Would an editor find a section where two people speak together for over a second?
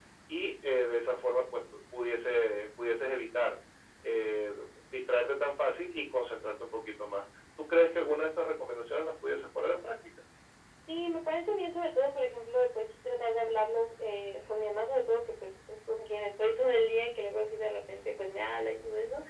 No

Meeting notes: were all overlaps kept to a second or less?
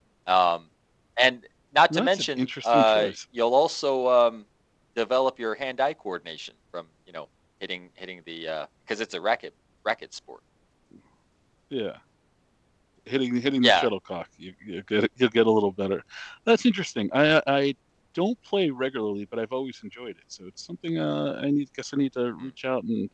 No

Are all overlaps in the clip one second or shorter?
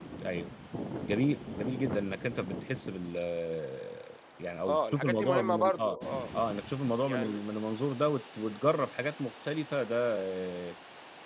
No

